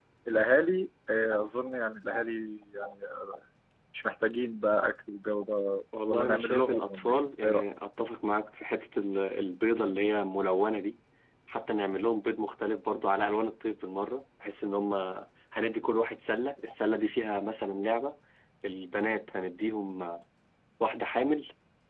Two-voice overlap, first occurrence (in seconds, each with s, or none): 5.9 s